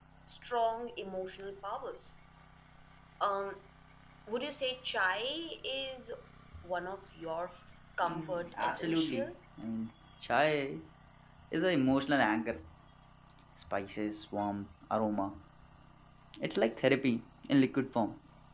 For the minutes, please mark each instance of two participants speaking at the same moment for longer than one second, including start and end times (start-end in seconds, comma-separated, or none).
8.0-9.3